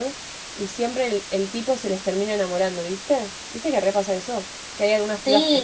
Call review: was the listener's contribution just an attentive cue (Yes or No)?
No